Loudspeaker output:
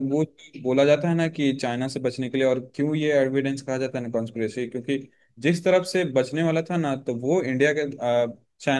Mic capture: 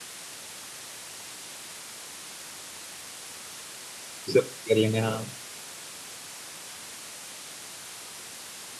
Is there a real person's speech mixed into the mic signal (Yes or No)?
Yes